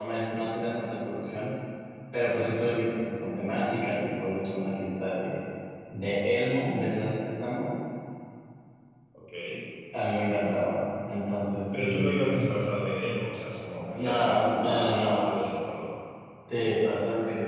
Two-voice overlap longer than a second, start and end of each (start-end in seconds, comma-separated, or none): 13.9-15.3